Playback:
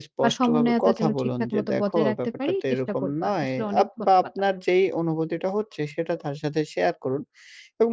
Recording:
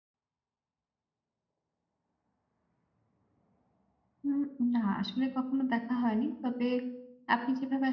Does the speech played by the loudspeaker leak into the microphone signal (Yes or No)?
No